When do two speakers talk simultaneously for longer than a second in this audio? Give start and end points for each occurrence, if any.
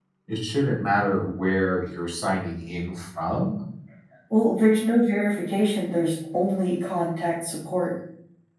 none

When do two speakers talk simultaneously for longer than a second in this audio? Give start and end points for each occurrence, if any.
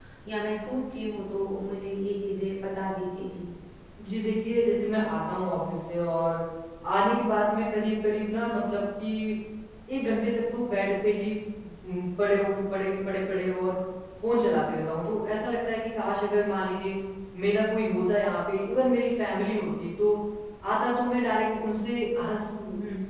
none

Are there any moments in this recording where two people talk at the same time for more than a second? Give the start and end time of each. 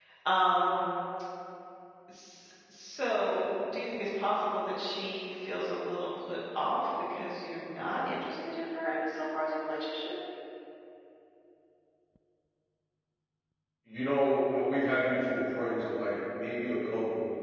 none

